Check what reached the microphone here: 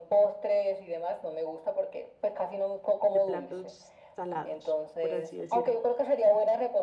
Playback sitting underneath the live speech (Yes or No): No